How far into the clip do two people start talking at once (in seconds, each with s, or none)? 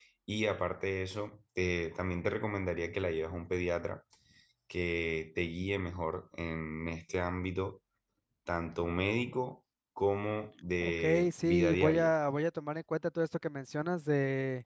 10.8 s